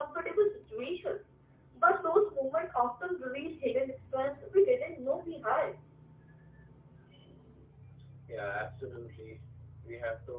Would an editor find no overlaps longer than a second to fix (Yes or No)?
Yes